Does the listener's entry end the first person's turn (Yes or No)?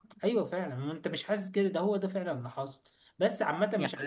Yes